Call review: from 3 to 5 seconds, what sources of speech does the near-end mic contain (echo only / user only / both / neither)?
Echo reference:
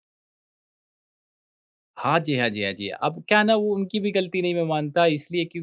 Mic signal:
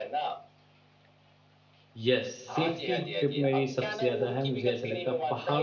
both